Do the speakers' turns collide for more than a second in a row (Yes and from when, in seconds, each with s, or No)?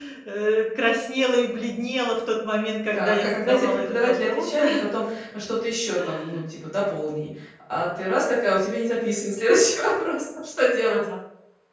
Yes, from 2.9 s